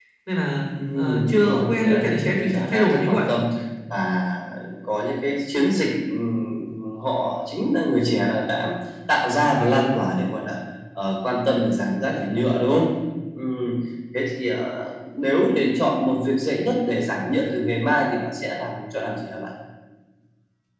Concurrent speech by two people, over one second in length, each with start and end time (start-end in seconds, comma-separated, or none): 0.9-3.3